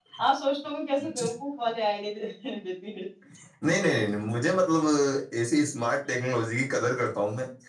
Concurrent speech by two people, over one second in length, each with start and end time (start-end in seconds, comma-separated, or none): none